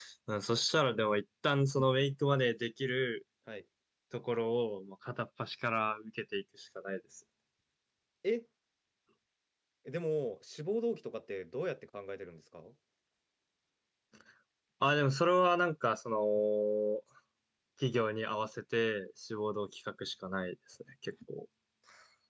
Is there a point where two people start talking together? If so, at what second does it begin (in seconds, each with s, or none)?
none